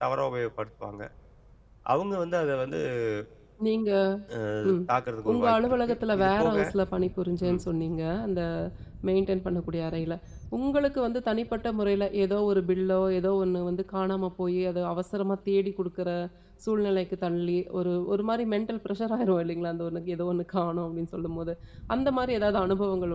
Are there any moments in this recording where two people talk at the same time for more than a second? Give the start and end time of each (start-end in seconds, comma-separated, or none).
5.3-6.6